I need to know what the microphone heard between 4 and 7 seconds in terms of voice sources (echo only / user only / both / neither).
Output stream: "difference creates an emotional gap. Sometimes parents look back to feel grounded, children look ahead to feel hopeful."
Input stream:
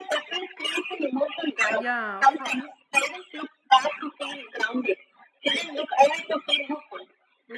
echo only